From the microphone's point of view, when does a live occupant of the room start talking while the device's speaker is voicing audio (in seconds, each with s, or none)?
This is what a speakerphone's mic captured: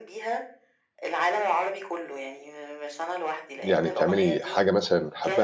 3.6 s